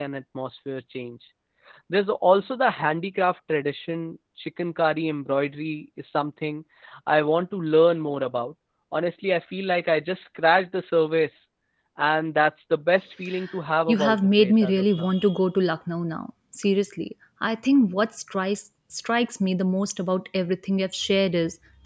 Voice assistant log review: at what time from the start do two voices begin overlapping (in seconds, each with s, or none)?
13.9 s